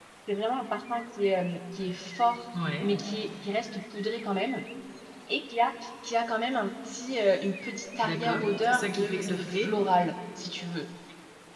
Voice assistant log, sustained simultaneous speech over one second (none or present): present